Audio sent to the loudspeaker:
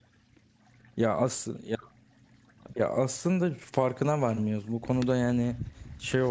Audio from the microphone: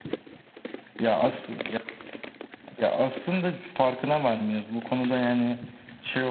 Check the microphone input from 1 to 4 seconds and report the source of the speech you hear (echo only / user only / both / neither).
echo only